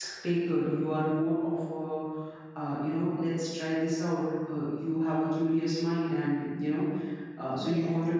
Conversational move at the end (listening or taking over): listening